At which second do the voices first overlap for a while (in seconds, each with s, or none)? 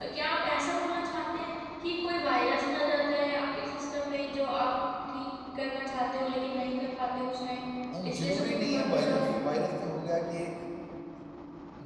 7.9 s